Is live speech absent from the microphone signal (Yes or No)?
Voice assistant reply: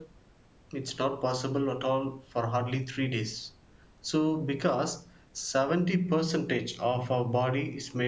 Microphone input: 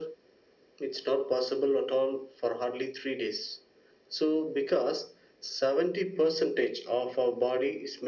Yes